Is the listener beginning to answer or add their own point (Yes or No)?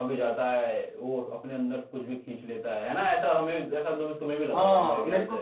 Yes